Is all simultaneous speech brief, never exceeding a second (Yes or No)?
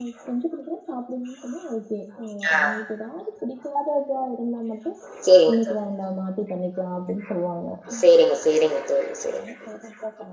Yes